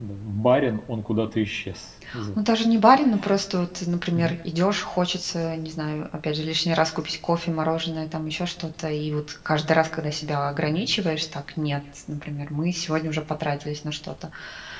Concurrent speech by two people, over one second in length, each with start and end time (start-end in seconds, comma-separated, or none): none